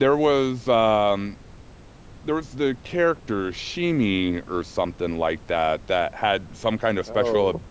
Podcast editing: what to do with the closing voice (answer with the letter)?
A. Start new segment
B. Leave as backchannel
B